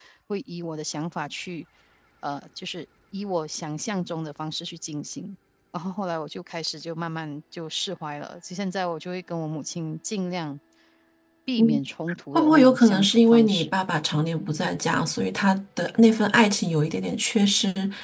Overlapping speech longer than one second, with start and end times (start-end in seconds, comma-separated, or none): 12.3-13.7